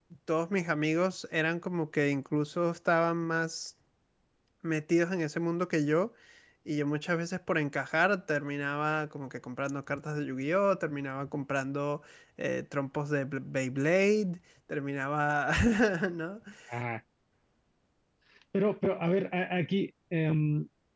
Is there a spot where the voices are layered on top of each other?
No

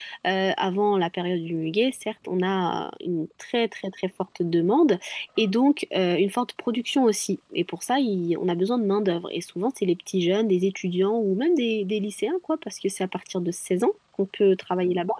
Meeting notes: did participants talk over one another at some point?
No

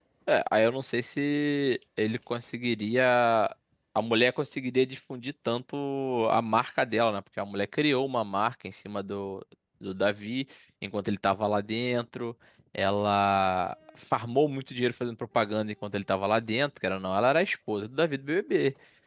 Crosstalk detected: No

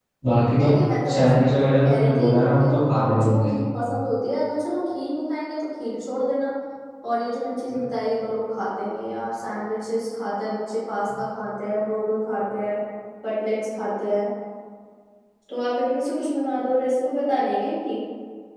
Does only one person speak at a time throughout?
No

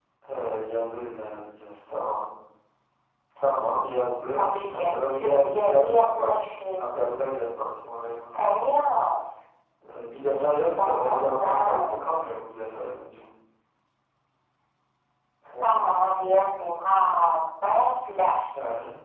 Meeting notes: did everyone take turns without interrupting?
No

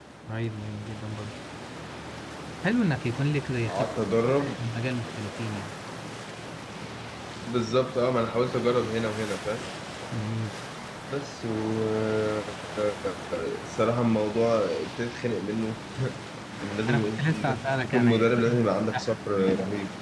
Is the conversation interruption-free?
No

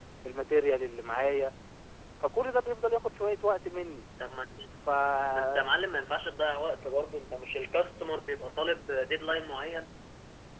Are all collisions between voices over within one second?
Yes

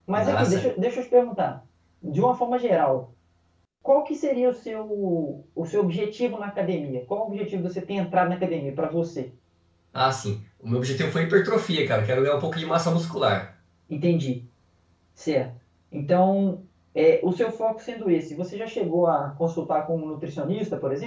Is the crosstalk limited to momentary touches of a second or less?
Yes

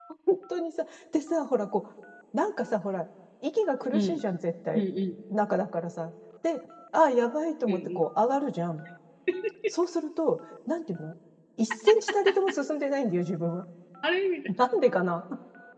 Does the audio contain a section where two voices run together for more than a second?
No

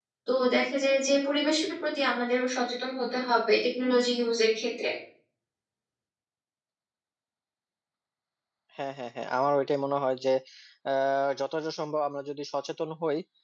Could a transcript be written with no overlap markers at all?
Yes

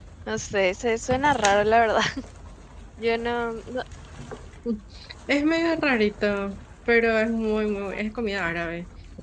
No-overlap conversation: Yes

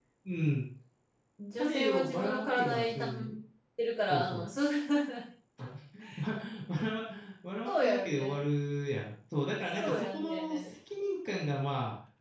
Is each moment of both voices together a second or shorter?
No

